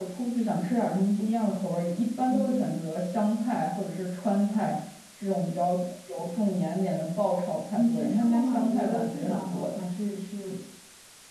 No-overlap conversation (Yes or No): No